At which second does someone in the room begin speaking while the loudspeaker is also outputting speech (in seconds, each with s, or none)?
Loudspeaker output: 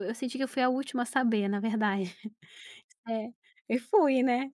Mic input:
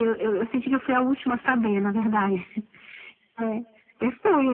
none